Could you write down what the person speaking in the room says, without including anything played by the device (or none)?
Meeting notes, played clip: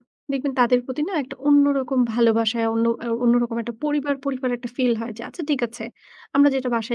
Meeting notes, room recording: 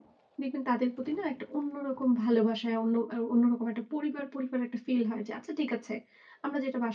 none